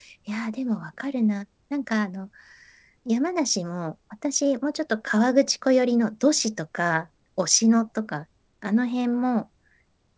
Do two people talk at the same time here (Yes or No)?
No